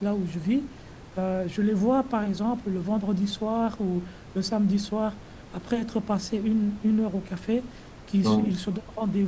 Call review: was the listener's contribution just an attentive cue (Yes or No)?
Yes